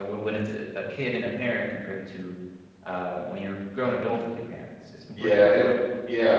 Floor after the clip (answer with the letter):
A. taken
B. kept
A